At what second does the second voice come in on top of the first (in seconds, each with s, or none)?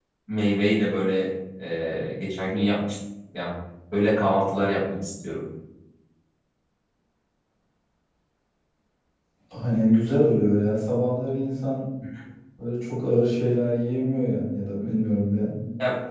none